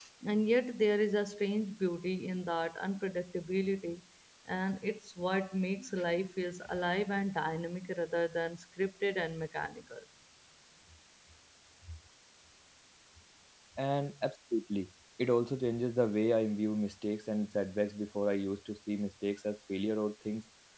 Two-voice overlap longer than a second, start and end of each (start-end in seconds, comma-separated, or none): none